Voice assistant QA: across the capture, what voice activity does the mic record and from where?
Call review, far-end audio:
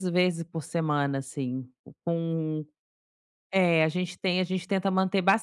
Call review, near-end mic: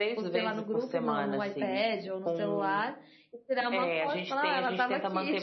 both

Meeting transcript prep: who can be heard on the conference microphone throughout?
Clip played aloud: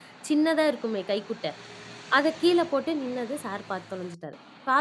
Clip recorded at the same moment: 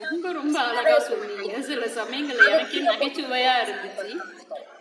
both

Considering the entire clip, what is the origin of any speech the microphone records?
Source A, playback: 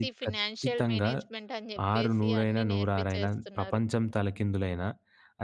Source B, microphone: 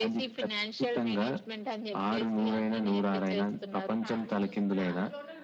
both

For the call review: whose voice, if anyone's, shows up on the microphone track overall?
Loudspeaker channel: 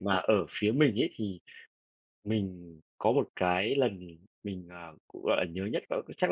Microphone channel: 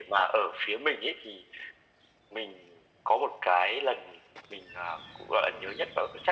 echo only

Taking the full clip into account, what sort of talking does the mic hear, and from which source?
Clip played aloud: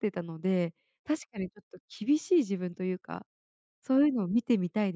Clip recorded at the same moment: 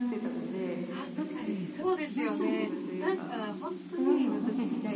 both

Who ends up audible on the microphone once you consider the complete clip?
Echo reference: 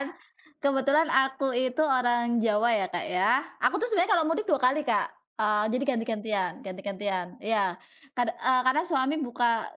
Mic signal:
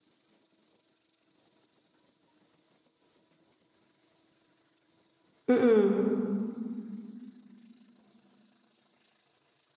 user only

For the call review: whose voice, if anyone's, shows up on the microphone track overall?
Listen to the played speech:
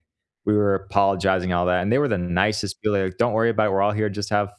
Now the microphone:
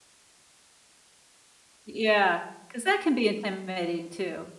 user only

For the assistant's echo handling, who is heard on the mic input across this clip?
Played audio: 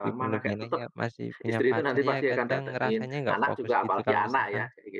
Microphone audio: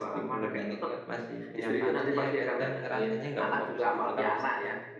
echo only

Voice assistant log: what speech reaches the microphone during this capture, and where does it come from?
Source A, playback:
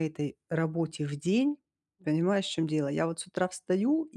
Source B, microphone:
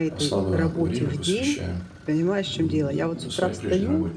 both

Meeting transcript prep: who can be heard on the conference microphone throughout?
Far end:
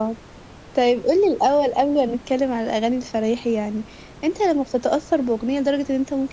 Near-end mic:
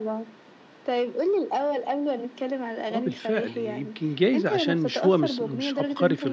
both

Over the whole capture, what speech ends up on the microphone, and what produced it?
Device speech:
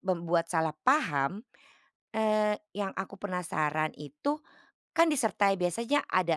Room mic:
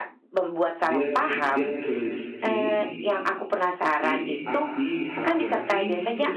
both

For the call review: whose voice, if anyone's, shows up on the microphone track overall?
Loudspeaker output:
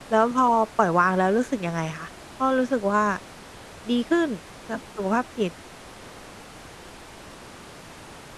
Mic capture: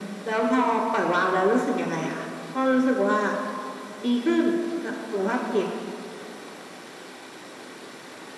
echo only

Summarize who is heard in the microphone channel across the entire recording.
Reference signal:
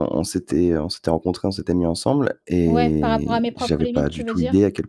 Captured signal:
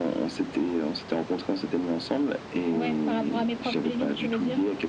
echo only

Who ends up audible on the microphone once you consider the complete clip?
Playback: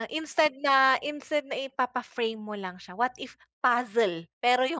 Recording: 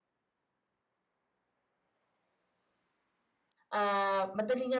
user only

